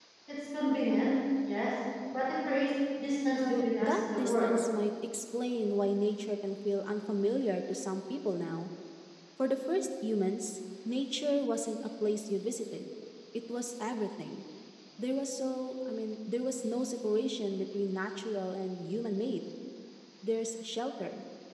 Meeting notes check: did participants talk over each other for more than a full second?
Yes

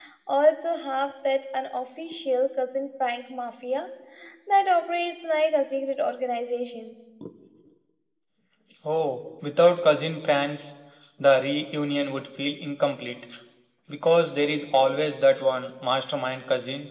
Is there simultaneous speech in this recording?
No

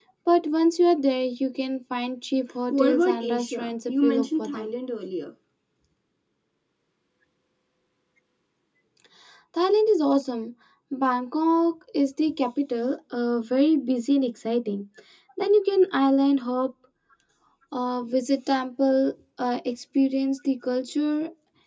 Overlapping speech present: Yes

